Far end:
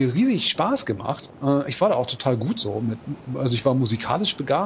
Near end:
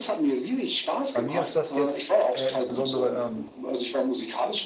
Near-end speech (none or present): present